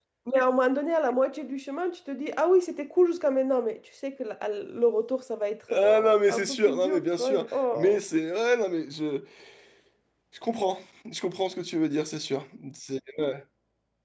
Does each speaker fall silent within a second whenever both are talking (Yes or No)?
No